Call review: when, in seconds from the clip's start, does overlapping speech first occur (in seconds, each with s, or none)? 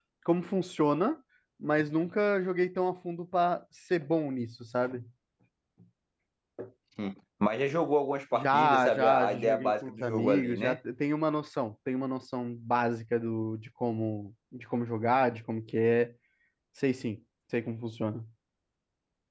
8.3 s